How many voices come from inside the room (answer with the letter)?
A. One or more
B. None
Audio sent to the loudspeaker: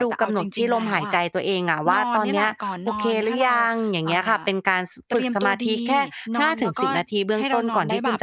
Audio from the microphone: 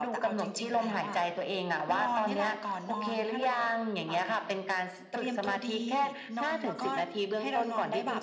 B